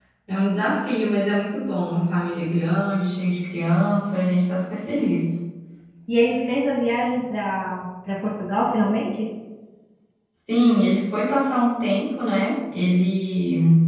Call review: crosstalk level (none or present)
none